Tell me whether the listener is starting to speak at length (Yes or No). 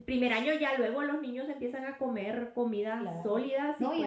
Yes